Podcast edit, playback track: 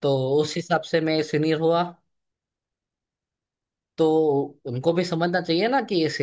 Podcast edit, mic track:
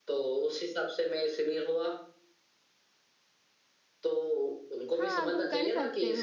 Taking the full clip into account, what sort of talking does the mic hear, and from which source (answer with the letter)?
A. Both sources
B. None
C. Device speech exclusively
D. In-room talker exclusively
A